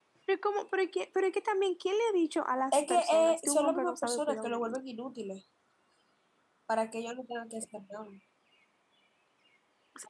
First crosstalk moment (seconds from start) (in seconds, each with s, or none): 2.7 s